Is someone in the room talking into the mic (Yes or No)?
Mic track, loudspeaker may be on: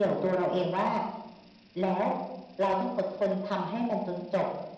No